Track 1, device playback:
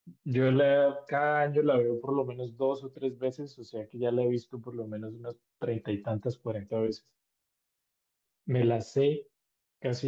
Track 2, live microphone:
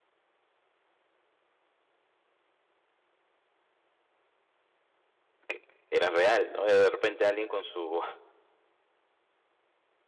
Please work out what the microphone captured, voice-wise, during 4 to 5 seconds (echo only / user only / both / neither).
neither